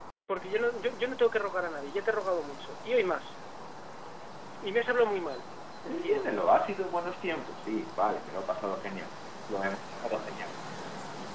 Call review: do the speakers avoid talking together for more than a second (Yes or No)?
Yes